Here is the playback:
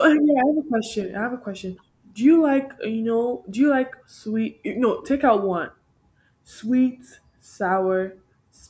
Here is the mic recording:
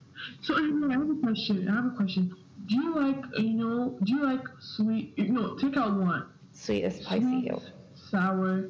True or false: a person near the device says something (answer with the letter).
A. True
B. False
A